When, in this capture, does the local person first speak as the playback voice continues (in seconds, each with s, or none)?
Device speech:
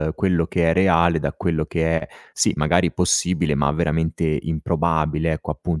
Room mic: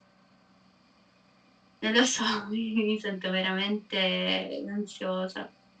1.8 s